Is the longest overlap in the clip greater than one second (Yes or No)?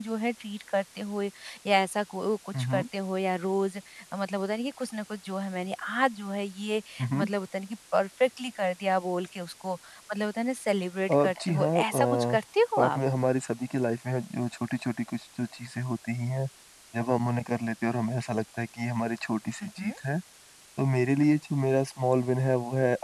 Yes